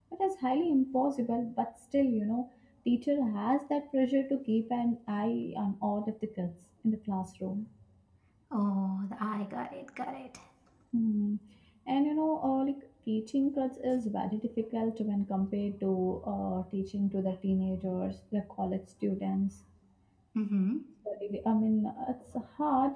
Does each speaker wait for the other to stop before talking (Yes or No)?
Yes